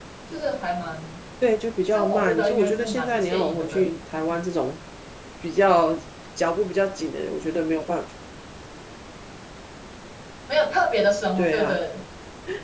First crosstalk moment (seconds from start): 1.9 s

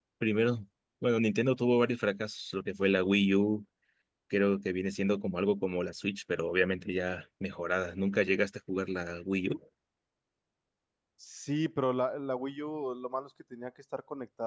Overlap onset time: none

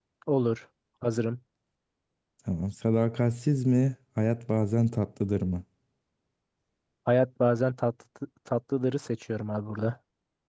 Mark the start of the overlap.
none

